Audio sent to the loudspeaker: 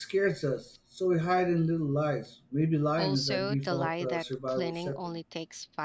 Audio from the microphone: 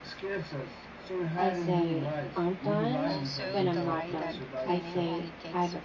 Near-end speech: present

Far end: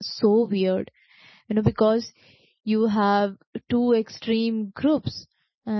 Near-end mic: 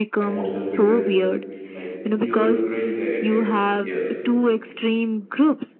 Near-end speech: present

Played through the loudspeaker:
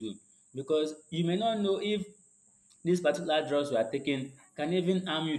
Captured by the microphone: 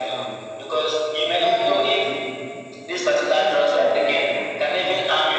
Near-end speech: present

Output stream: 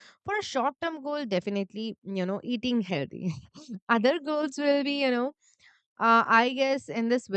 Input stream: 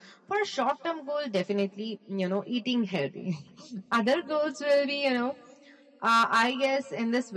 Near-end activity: none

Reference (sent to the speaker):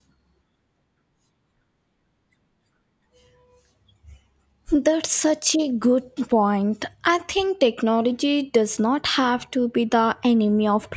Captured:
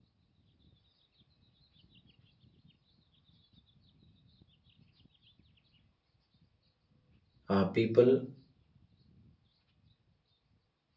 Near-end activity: present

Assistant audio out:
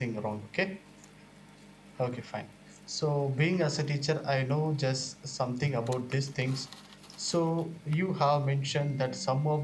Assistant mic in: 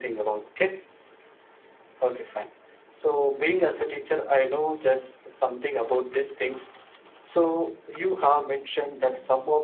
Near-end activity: none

